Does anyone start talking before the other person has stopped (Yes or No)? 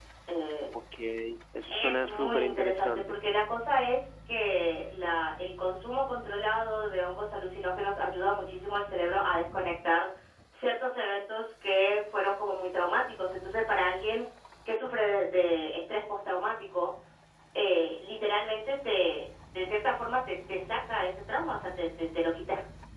Yes